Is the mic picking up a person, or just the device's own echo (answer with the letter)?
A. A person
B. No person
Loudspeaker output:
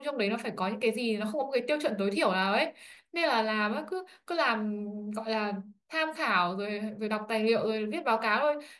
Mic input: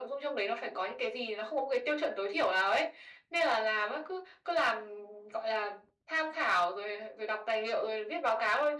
B